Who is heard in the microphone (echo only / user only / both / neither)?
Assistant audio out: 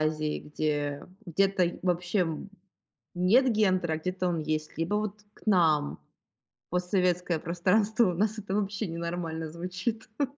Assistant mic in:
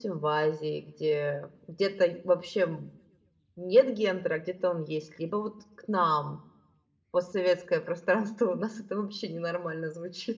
echo only